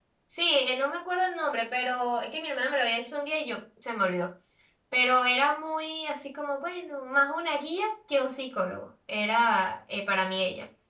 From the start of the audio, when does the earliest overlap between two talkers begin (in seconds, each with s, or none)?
none